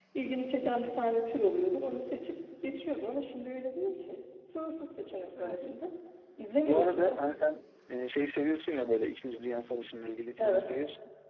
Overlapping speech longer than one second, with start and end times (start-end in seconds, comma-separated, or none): none